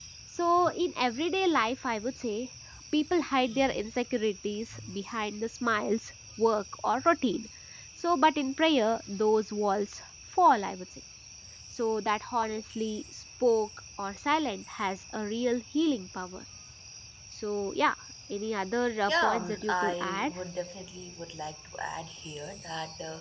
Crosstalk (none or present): present